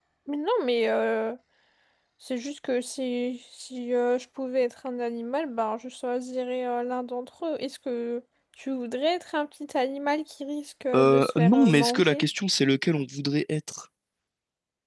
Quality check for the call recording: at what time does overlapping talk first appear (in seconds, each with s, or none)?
10.9 s